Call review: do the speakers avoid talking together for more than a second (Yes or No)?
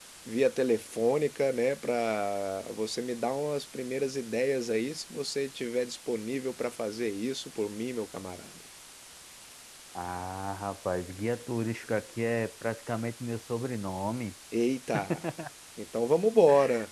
Yes